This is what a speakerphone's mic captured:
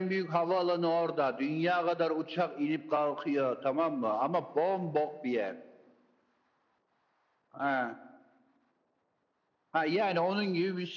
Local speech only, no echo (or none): none